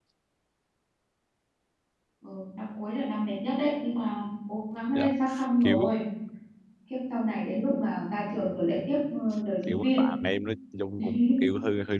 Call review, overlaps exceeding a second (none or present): none